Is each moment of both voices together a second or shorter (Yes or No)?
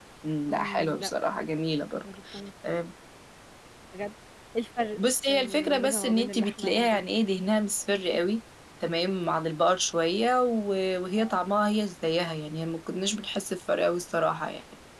No